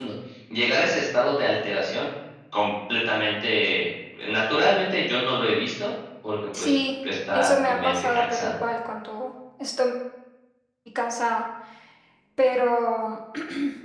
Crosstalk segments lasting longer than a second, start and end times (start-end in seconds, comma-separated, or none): 7.3-8.6